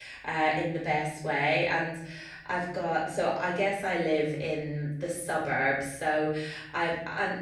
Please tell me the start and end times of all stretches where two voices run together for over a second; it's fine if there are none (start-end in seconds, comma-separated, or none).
none